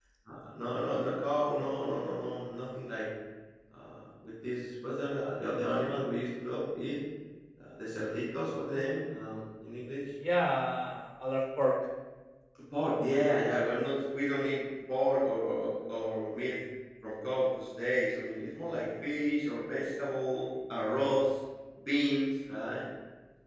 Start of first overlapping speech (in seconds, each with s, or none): none